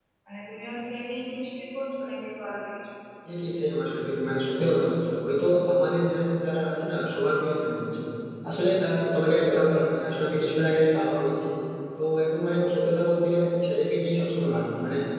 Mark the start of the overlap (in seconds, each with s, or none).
none